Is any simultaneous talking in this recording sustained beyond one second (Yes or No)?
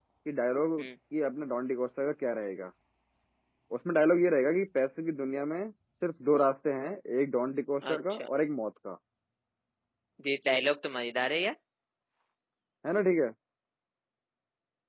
No